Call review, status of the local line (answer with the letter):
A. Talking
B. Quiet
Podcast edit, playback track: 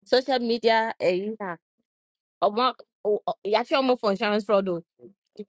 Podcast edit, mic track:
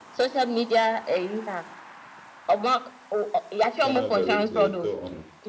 A